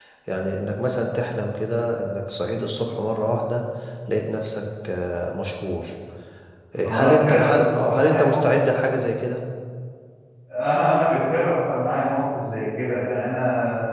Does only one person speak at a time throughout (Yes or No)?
No